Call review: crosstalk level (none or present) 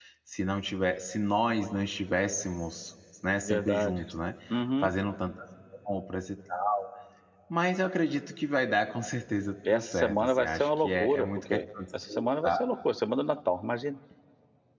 present